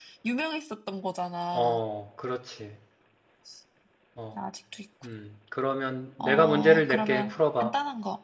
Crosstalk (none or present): present